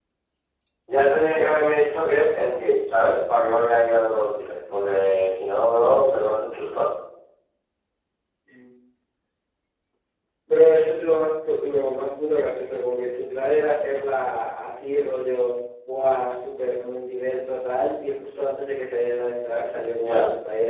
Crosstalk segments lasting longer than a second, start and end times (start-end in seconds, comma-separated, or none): none